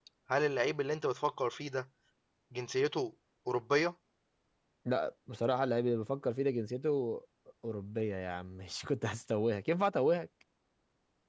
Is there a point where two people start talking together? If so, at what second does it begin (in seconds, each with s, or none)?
none